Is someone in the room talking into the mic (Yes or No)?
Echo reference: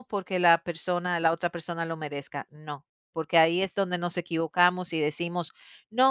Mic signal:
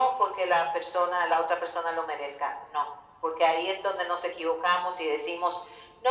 No